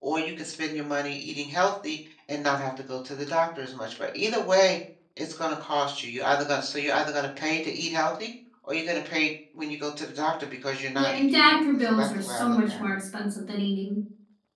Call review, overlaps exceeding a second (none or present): present